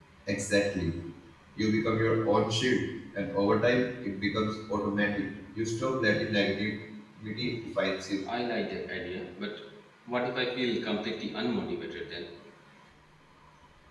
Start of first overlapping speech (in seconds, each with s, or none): none